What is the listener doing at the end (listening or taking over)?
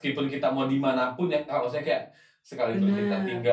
listening